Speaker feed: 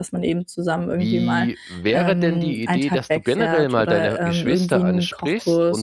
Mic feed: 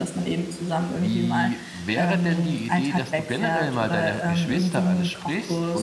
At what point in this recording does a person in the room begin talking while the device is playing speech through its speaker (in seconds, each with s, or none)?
none